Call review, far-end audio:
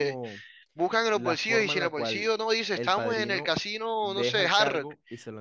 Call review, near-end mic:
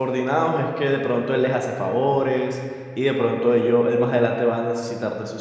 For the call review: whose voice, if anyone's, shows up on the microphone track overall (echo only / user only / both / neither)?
user only